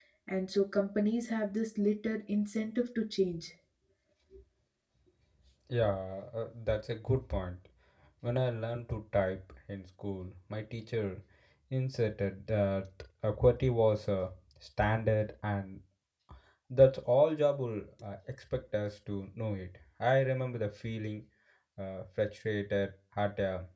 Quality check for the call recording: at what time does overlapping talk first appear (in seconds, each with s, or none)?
none